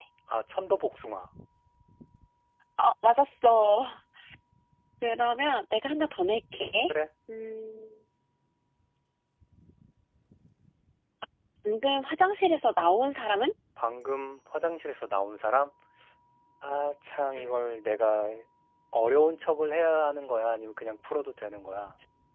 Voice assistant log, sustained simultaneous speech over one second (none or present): none